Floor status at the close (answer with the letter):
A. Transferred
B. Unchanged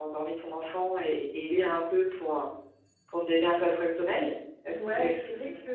A